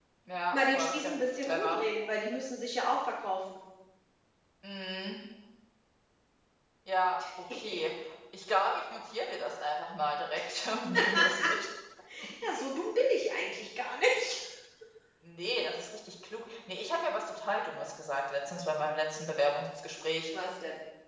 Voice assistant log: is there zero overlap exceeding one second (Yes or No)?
No